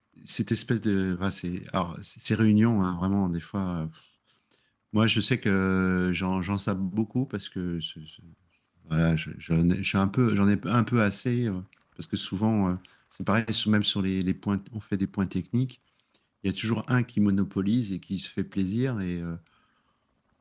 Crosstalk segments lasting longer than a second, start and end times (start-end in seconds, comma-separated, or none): none